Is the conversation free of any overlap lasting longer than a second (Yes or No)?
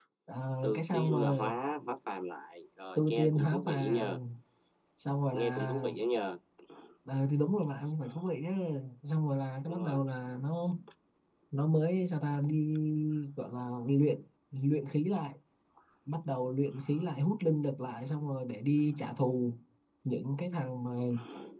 No